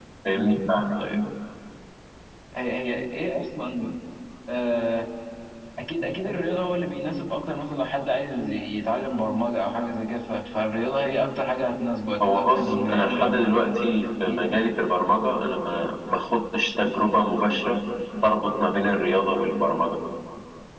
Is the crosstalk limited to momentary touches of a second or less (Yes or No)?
No